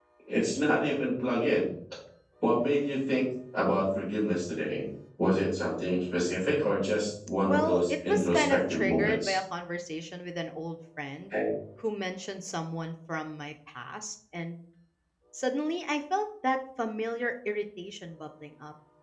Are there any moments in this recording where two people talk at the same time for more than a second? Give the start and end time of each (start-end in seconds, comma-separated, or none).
7.5-9.4